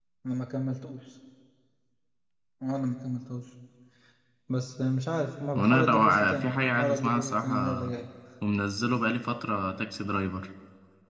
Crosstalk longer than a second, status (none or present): present